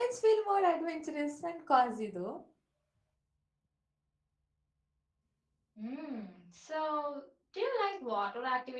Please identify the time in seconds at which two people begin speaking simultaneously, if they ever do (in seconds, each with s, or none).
none